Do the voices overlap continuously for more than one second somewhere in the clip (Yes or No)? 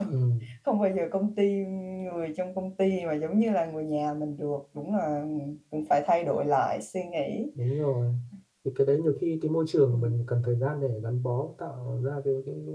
No